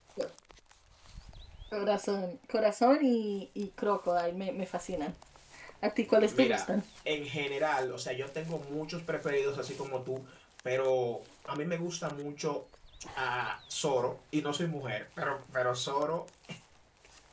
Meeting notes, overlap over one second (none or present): none